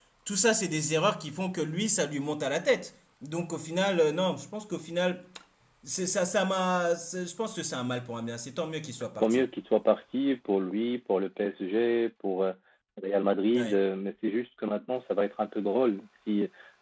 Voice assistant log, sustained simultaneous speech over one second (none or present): none